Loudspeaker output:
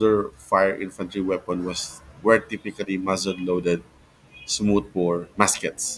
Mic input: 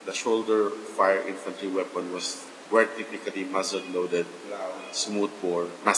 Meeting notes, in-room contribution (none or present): present